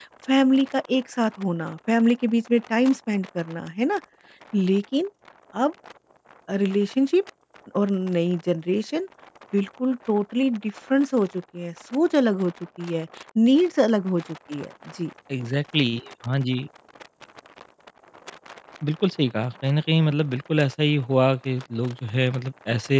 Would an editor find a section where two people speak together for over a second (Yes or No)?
No